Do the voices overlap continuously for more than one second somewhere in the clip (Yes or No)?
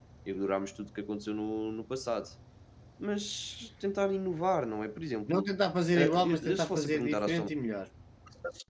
Yes